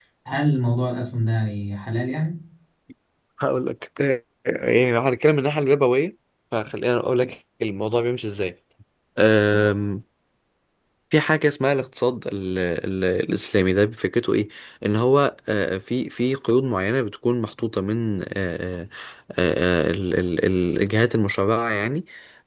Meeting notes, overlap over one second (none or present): none